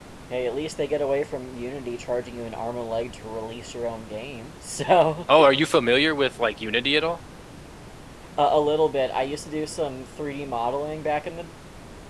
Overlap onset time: none

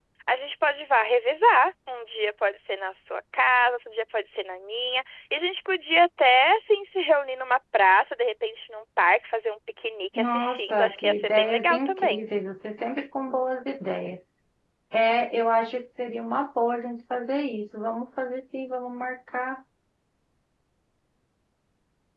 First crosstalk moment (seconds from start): 10.2 s

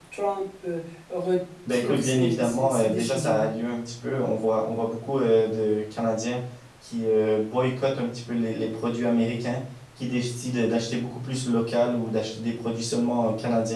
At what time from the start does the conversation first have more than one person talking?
1.6 s

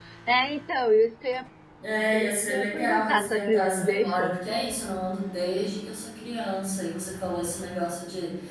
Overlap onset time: 2.1 s

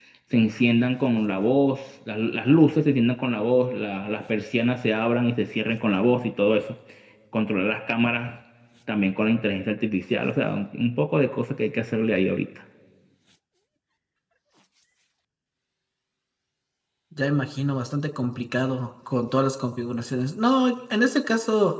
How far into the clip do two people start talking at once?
none

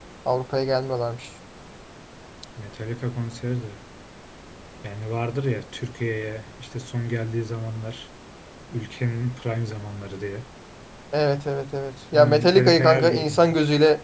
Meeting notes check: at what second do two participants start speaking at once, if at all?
12.1 s

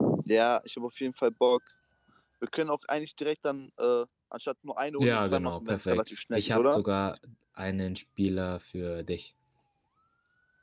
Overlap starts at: 5.0 s

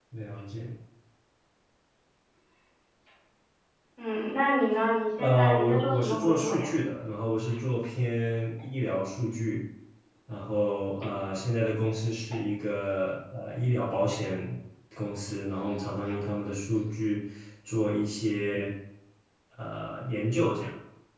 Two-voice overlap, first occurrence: 5.2 s

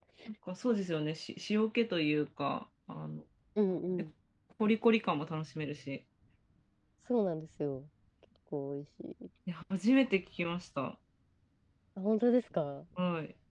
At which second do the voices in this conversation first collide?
none

